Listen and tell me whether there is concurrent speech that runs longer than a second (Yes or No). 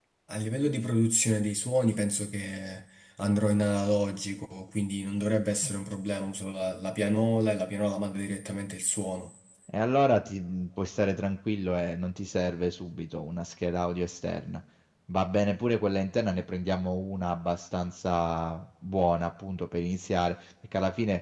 No